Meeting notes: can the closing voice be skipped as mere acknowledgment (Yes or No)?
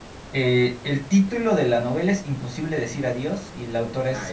No